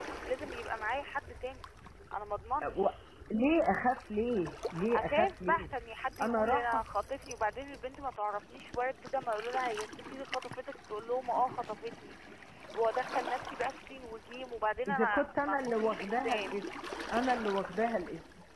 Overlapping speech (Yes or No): Yes